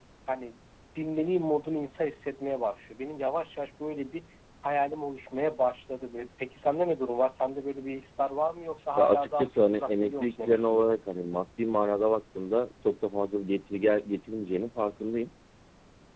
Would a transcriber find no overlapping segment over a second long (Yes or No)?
No